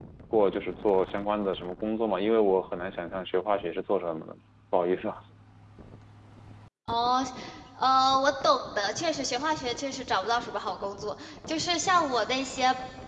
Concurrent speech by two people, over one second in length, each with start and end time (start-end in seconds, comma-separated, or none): none